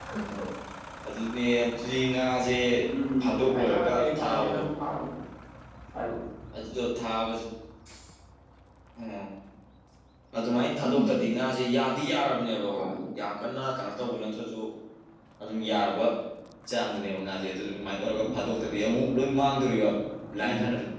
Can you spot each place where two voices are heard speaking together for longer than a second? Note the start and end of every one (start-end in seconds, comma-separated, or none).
3.2-4.6